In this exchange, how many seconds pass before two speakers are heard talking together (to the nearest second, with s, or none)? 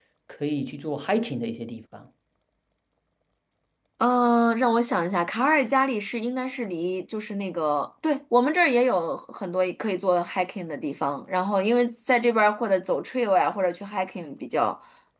none